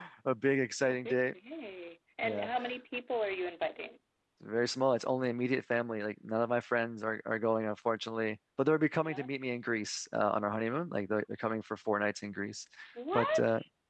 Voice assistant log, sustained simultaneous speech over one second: none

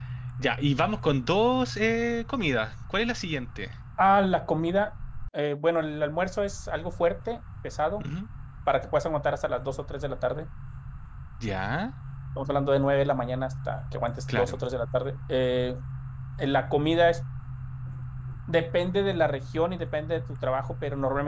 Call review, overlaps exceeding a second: none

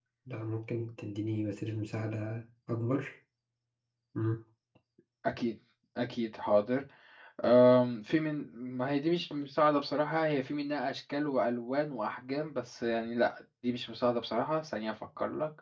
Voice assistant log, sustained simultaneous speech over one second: none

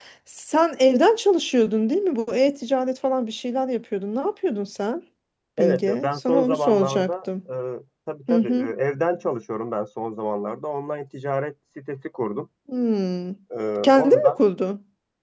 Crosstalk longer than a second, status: present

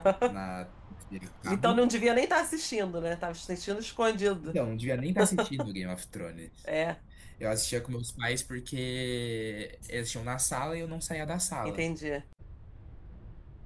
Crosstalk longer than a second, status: none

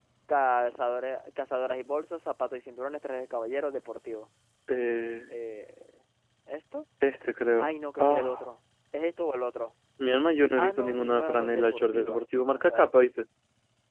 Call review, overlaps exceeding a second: present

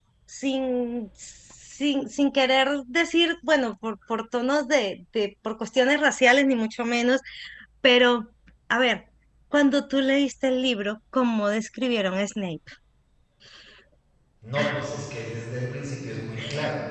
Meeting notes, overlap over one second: none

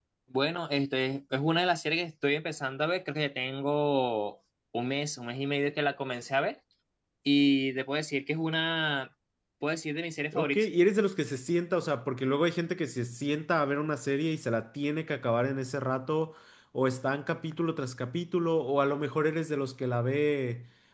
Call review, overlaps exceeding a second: none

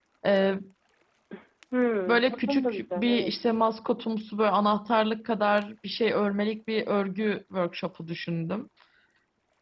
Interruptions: present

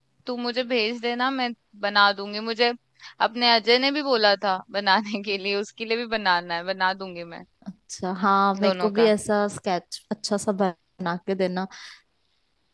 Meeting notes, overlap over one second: none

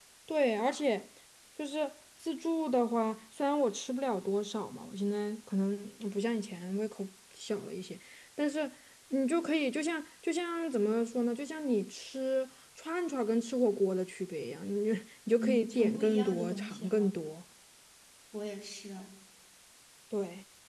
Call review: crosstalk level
present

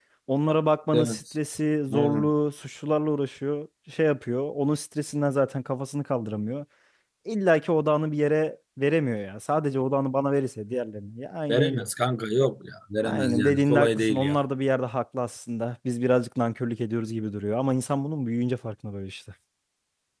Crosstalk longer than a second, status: present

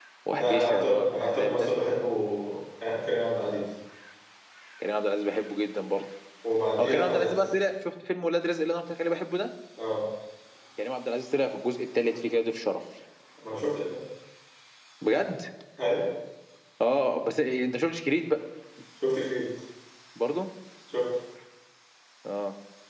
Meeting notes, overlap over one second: present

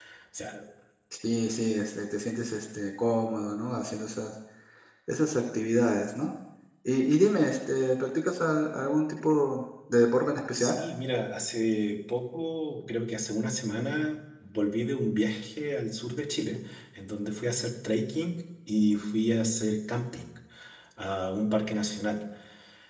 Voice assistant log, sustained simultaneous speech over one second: none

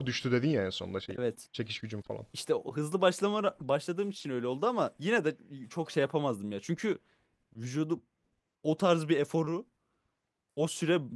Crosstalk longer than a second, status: none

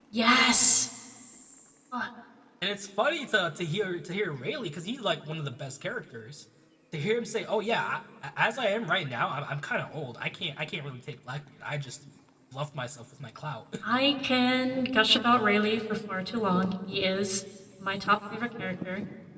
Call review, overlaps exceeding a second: none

